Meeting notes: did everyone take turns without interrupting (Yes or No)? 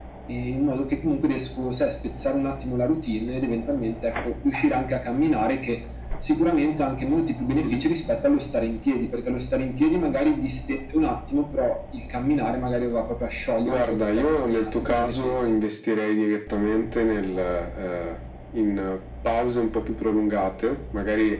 No